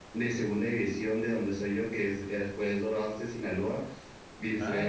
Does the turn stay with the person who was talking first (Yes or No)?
No